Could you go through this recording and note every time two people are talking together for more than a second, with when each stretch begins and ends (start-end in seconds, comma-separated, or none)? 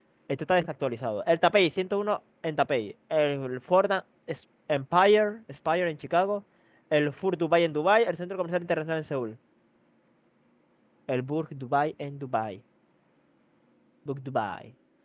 none